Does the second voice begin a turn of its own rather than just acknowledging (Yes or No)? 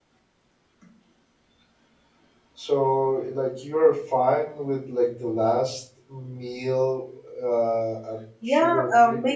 Yes